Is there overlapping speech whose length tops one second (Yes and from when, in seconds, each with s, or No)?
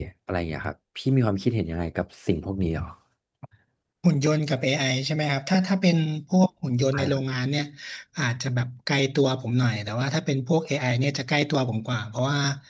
No